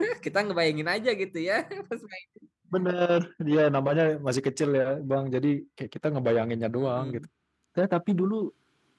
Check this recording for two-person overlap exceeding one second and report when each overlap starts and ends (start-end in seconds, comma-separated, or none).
none